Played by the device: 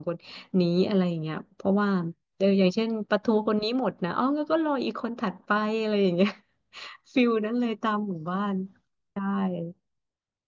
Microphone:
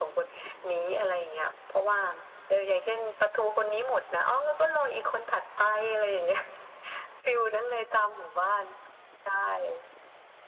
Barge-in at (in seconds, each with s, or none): none